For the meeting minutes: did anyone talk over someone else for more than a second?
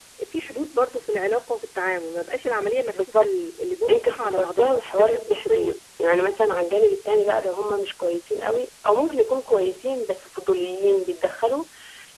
Yes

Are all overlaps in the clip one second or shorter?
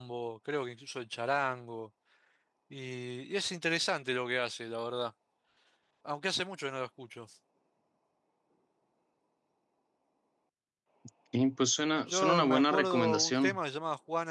No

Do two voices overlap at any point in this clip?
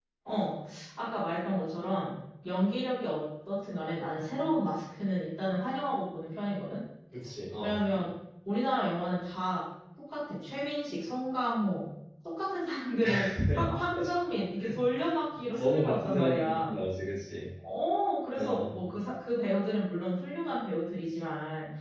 Yes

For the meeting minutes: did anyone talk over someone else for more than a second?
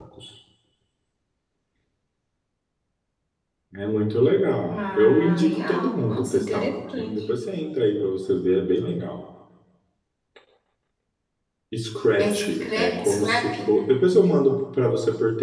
Yes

